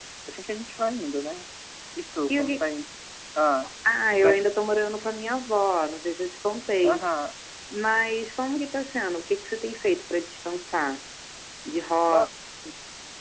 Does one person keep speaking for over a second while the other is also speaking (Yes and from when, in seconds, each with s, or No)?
No